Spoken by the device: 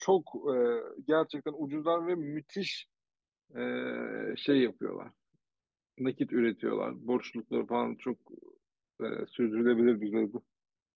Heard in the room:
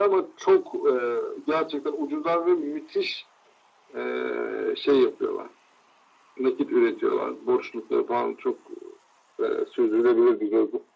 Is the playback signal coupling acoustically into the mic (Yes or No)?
Yes